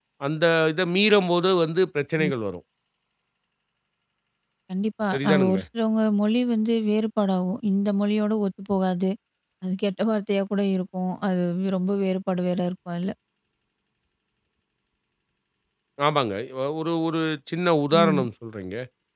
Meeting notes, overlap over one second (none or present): none